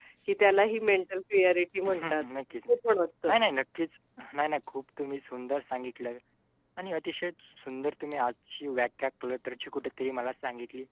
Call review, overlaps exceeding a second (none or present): none